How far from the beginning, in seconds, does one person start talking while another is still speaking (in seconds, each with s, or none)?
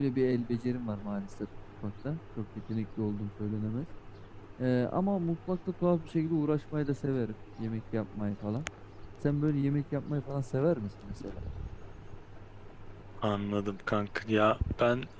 none